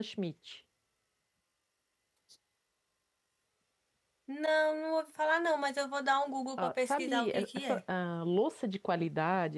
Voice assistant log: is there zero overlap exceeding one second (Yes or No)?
No